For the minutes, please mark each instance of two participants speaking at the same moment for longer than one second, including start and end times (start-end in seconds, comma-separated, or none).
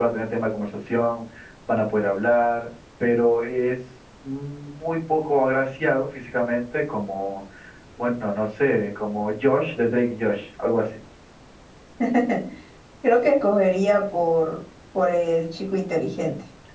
none